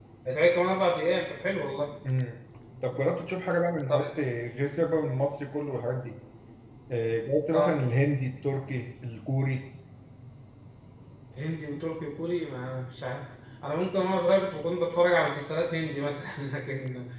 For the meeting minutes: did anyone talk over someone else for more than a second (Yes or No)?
No